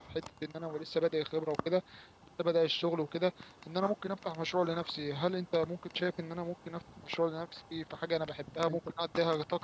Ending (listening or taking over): listening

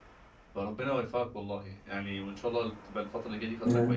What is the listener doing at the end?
listening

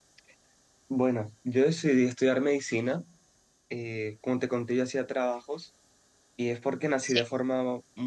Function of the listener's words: listening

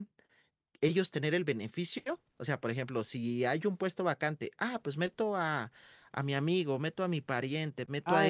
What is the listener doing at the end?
taking over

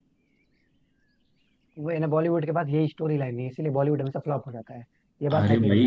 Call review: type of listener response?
taking over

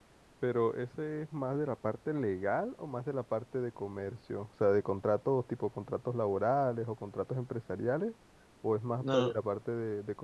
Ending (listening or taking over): listening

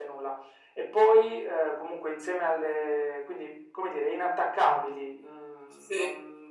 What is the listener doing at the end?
listening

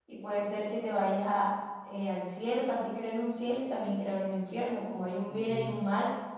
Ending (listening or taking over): listening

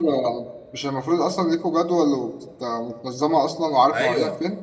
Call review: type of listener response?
taking over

